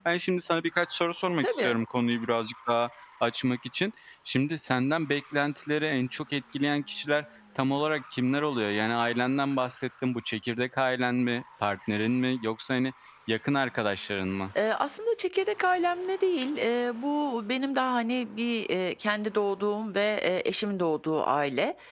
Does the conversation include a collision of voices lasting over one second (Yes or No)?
No